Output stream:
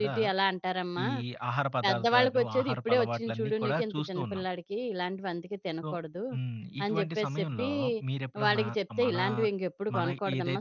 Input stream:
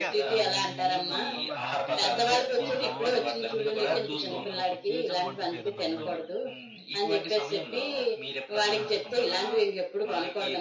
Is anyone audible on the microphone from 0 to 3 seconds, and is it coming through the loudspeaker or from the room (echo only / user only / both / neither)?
both